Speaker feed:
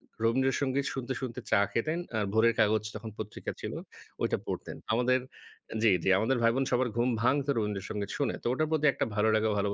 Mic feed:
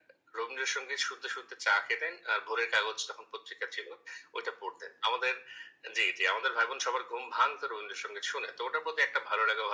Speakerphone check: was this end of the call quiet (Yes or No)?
Yes